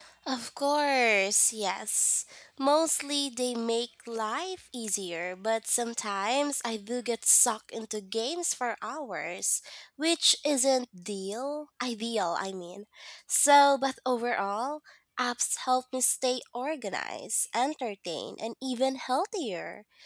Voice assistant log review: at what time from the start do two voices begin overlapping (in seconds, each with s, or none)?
none